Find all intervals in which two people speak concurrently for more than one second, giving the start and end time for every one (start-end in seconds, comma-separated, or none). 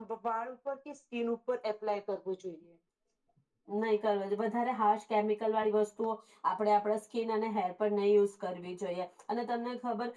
none